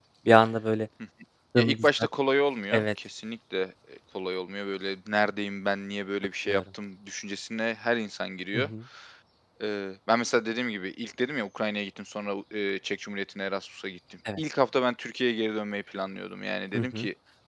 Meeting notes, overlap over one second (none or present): none